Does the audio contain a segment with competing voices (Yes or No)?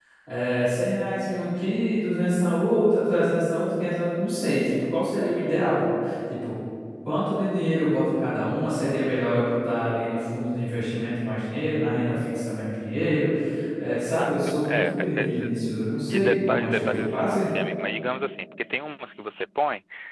Yes